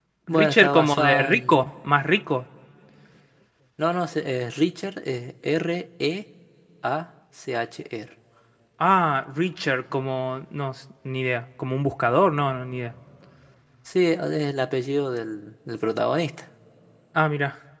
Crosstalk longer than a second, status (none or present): present